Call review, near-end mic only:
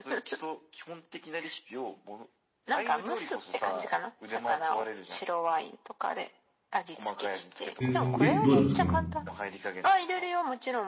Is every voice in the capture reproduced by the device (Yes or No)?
No